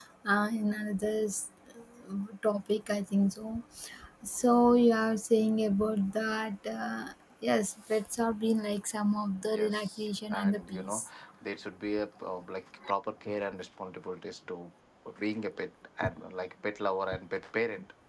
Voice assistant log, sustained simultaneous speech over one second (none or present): present